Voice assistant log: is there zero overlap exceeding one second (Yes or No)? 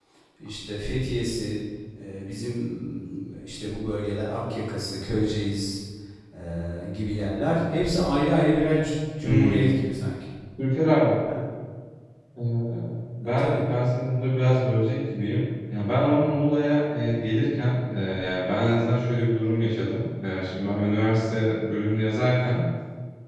Yes